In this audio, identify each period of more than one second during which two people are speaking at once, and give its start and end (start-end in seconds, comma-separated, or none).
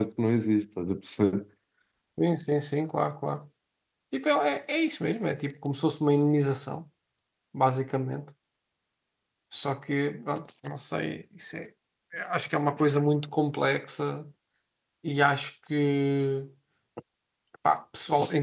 none